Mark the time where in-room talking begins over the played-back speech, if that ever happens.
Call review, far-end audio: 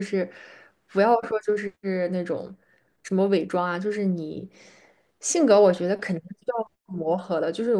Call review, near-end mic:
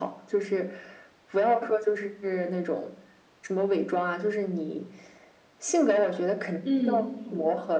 6.6 s

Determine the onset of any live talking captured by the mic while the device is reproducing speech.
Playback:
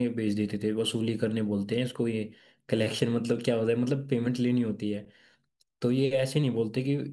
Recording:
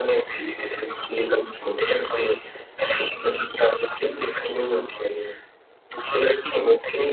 none

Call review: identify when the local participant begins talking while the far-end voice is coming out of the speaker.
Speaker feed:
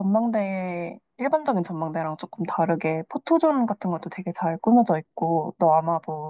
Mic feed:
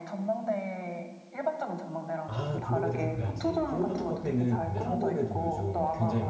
2.2 s

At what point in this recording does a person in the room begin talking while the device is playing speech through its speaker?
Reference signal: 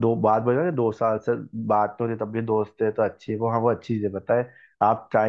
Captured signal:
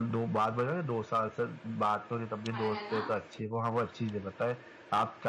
2.5 s

